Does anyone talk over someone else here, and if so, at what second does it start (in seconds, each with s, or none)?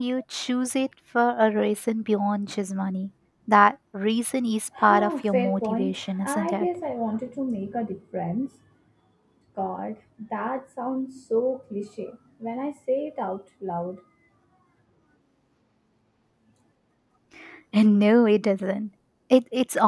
4.8 s